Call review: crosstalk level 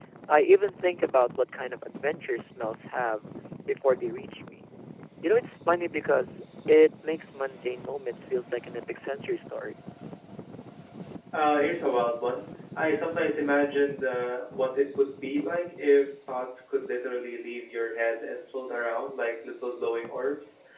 none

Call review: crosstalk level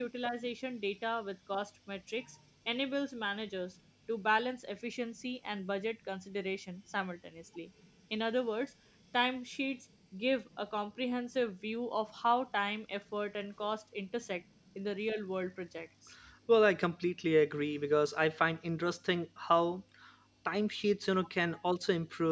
none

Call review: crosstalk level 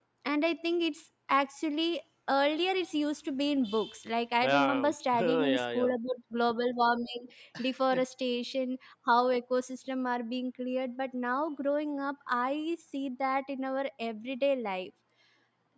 present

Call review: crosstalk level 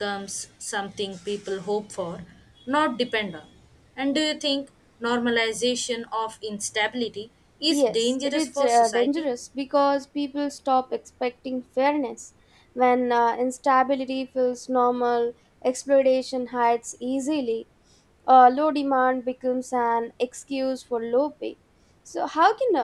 present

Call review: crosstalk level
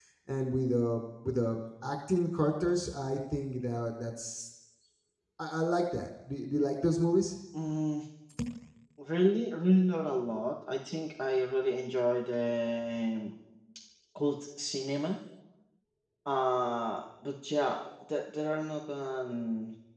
none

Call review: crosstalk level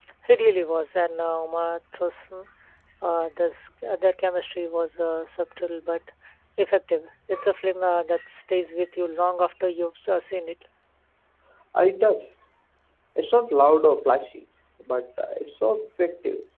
none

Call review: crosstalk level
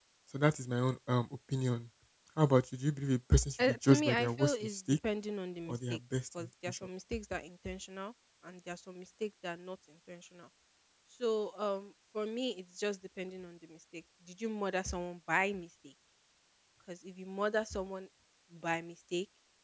present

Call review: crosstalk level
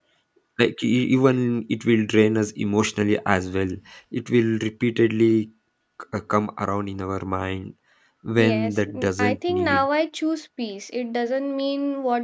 present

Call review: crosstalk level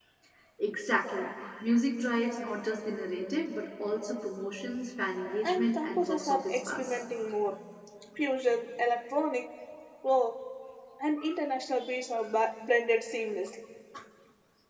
present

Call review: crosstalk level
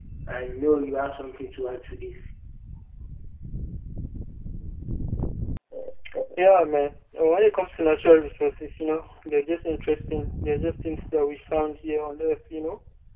none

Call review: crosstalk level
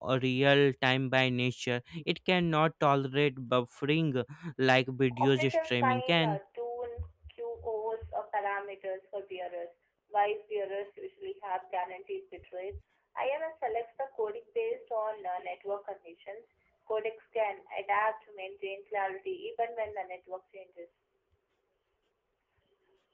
present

